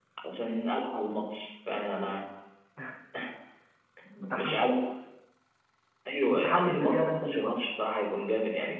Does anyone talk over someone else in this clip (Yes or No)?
Yes